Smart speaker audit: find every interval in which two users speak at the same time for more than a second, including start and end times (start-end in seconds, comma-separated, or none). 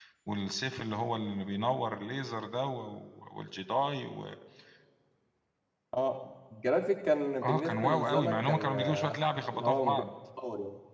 7.4-10.0